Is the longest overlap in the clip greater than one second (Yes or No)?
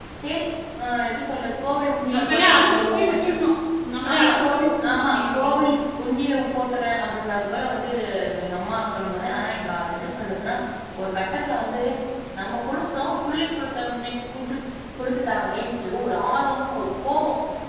Yes